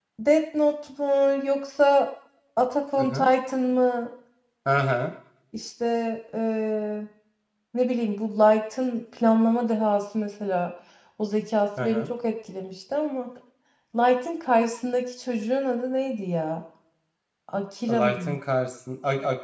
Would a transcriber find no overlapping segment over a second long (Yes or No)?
Yes